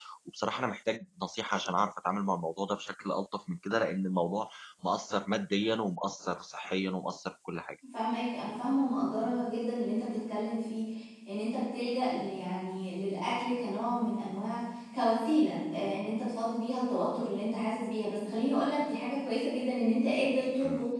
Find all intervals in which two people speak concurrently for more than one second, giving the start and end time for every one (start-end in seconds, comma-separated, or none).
none